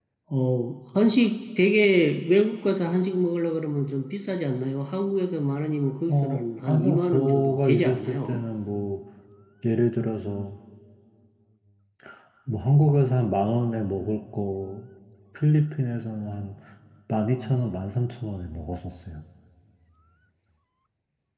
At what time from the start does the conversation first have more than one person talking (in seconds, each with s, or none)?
6.1 s